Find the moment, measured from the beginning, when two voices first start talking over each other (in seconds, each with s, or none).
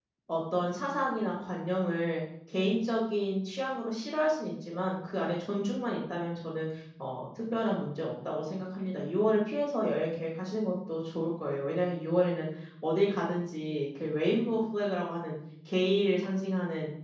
none